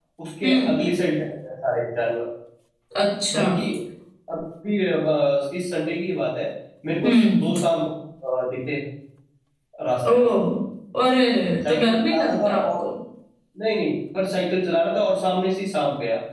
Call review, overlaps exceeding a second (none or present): present